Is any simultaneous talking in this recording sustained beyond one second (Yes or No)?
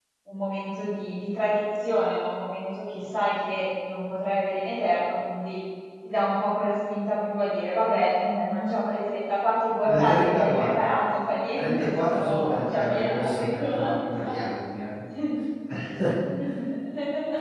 Yes